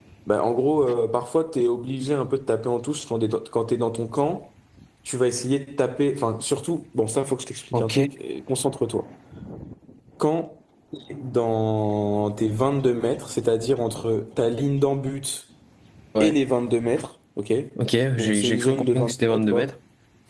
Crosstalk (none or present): present